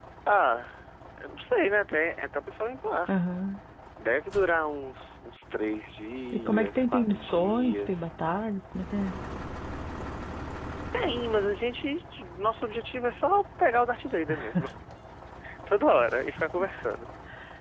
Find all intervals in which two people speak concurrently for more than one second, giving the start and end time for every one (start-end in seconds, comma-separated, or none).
6.3-8.1